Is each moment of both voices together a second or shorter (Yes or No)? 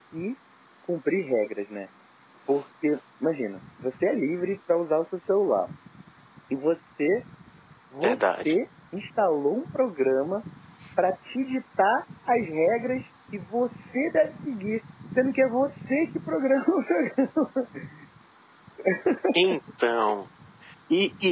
Yes